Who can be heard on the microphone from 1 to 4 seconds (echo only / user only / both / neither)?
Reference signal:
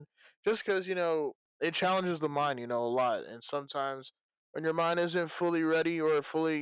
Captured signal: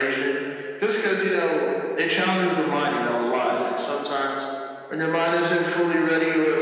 echo only